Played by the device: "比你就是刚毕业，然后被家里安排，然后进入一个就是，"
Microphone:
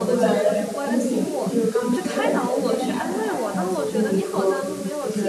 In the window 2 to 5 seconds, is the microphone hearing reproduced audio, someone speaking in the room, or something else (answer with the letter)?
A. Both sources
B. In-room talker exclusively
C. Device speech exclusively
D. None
A